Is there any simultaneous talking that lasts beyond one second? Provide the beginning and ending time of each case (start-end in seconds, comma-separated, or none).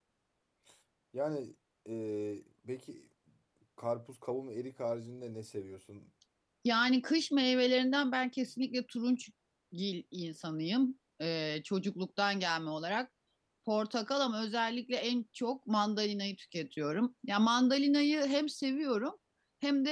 none